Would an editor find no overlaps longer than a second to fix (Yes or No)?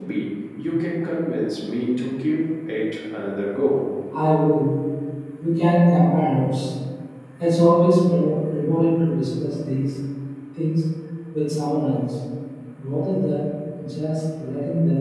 Yes